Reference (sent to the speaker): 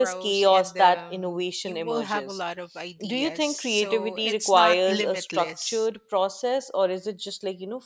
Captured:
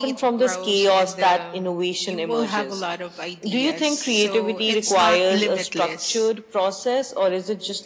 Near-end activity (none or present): none